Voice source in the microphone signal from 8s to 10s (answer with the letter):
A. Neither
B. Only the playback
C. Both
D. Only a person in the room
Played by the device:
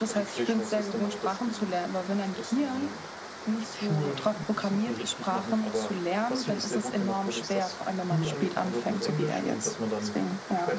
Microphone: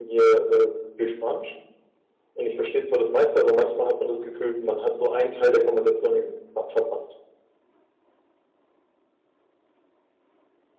A